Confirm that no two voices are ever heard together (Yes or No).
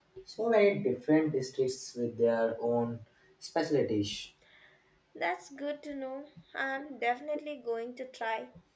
Yes